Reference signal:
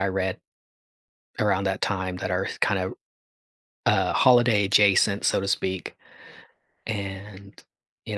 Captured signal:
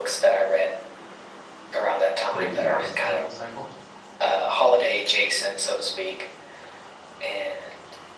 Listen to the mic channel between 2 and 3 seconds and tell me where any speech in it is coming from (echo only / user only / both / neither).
both